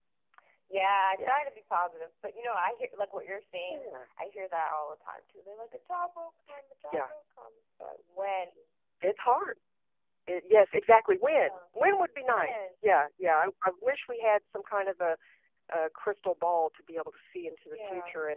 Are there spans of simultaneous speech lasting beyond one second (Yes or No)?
No